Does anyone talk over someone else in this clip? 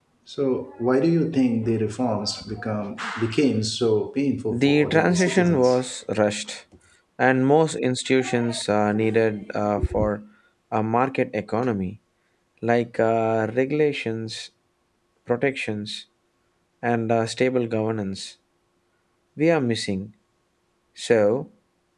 Yes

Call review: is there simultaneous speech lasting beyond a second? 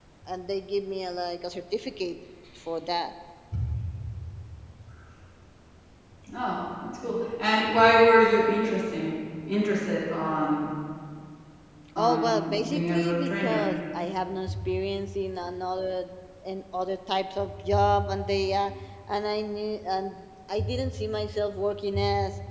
Yes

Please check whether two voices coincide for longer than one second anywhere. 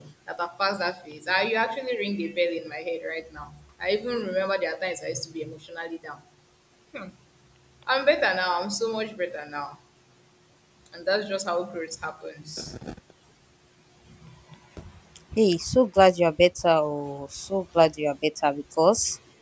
No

